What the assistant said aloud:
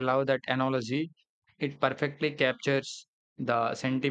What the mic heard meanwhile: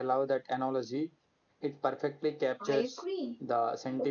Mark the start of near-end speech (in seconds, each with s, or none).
2.6 s